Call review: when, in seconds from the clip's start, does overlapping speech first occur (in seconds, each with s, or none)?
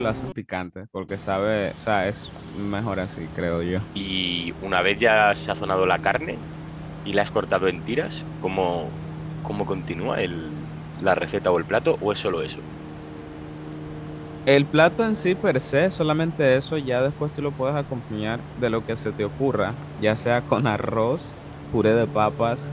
none